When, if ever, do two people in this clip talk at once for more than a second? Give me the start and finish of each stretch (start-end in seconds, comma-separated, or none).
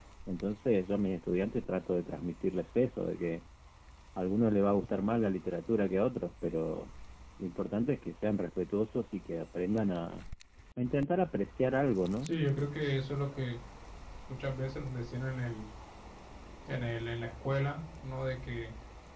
none